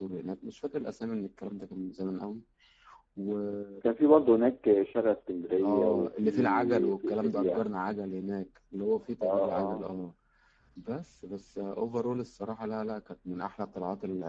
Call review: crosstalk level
present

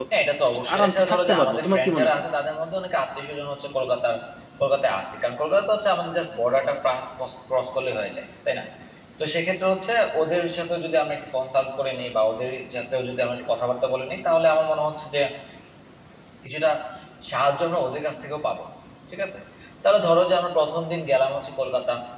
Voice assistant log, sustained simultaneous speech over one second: present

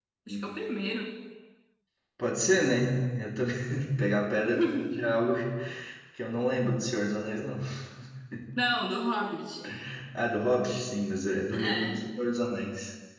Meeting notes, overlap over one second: none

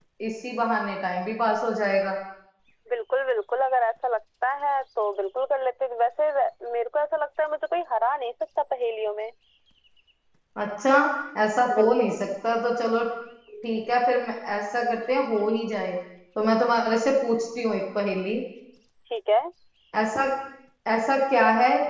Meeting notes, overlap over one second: none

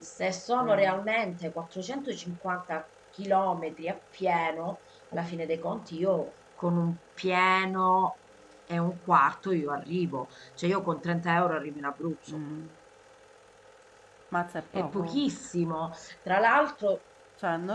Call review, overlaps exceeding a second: none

